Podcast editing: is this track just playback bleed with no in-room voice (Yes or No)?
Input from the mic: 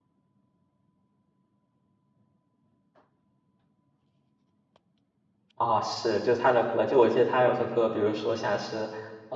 No